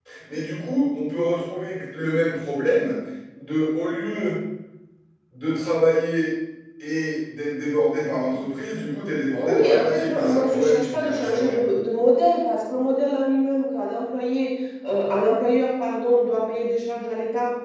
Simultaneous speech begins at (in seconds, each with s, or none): 9.4 s